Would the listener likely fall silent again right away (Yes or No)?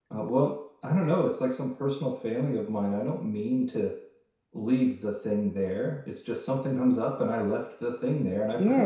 No